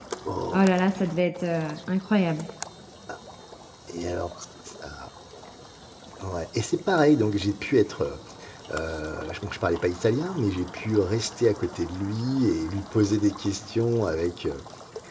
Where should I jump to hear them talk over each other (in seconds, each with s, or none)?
none